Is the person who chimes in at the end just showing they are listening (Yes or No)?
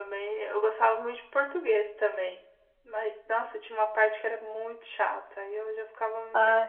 Yes